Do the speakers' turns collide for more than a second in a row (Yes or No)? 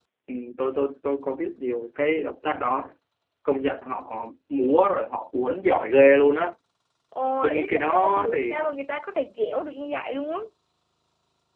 Yes